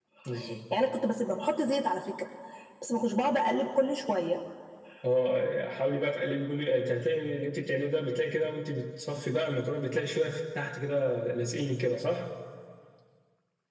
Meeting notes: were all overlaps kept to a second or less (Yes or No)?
Yes